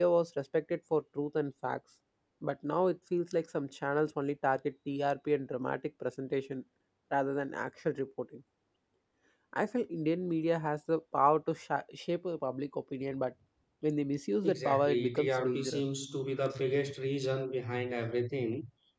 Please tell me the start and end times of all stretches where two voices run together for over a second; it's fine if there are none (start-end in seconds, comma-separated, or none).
14.4-15.8